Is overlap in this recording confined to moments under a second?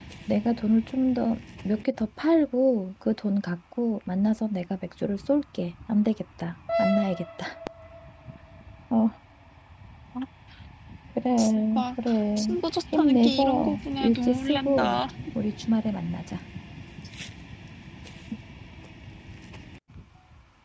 No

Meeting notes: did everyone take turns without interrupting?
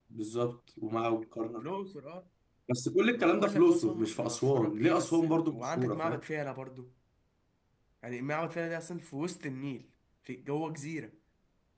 No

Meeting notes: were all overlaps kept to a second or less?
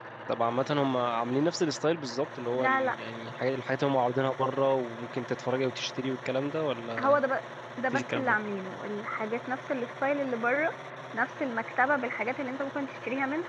Yes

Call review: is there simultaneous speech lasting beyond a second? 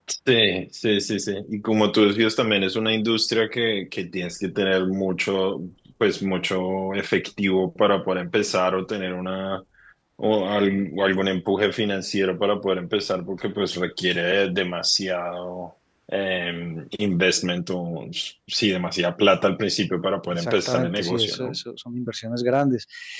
Yes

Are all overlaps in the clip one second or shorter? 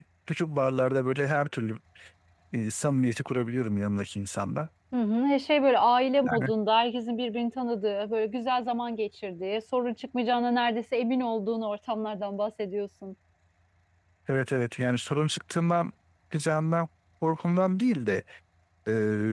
Yes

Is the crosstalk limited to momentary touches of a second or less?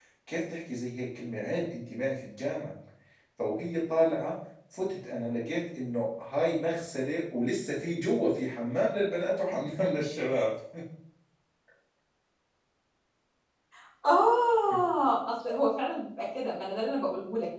Yes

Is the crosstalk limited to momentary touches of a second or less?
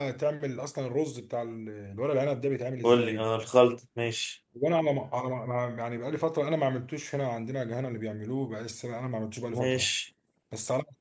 Yes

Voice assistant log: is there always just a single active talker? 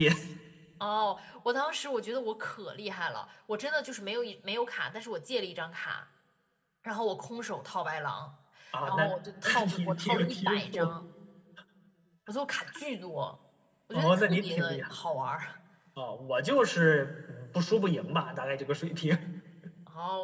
No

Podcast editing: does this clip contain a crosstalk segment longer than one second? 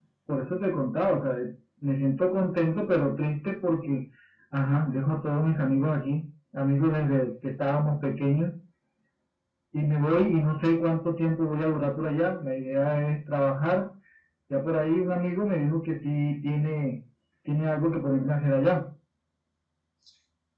No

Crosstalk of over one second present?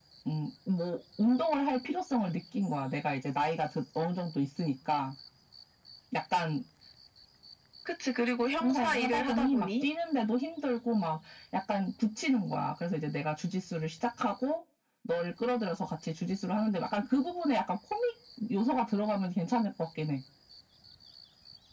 Yes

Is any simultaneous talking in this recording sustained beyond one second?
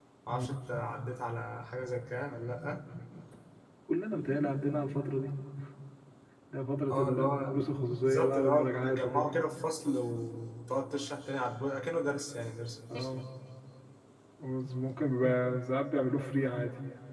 Yes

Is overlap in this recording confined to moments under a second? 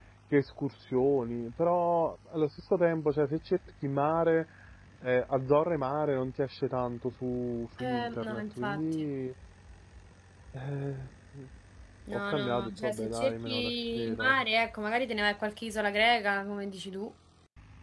No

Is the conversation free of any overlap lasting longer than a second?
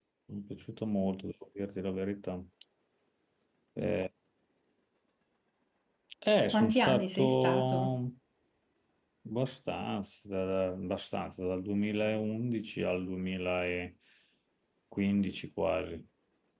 No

